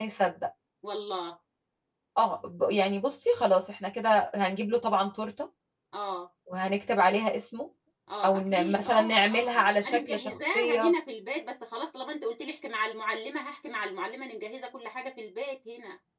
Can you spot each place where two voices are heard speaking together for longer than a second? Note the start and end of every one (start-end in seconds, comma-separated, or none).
8.2-10.9